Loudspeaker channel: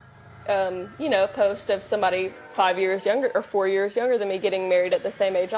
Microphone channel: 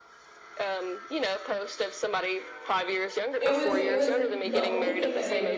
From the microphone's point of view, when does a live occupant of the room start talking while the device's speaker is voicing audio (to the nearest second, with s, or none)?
3 s